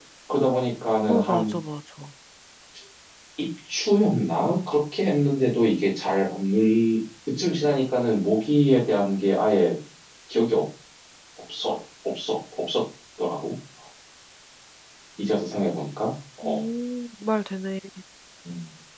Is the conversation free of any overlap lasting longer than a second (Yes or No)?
Yes